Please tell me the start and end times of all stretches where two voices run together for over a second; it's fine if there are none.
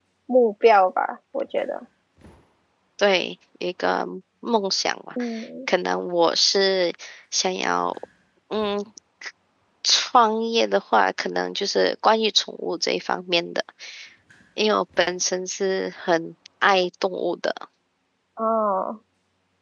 none

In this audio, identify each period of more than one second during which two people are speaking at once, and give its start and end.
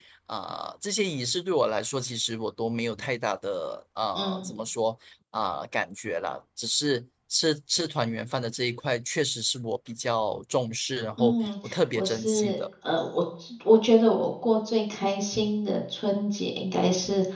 11.2-12.6

